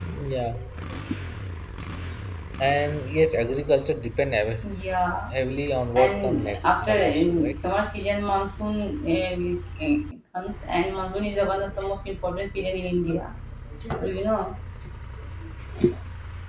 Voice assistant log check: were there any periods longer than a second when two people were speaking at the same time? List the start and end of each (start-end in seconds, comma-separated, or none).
6.0-7.5